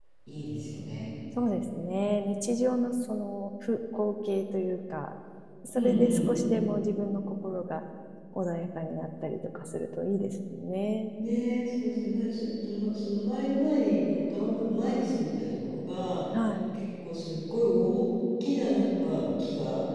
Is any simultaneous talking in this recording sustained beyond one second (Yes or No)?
No